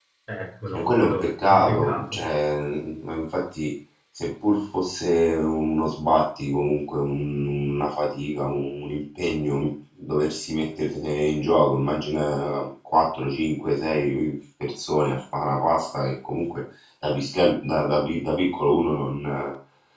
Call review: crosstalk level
present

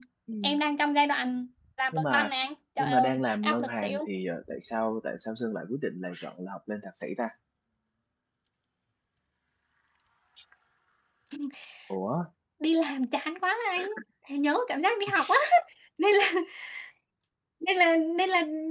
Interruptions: present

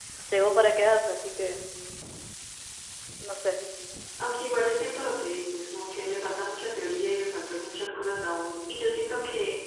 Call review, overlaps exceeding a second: none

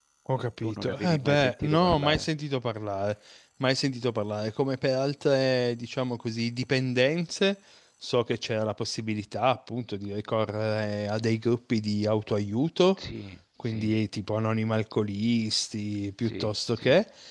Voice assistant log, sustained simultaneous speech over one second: present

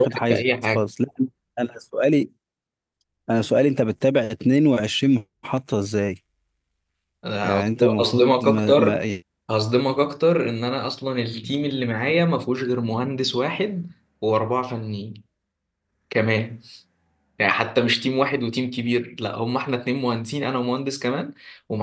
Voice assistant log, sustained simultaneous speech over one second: present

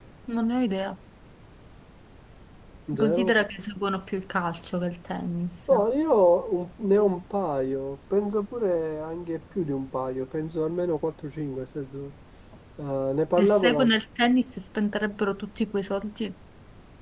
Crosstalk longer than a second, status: none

